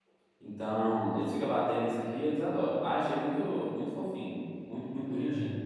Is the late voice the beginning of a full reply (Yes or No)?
Yes